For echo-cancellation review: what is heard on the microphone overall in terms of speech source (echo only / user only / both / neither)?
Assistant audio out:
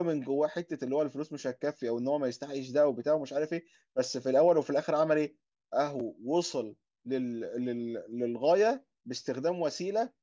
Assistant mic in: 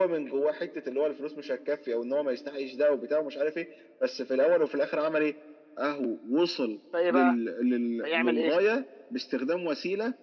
both